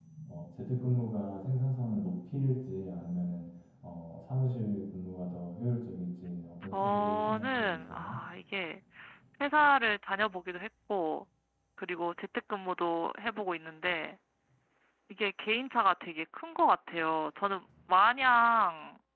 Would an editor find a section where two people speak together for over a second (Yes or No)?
Yes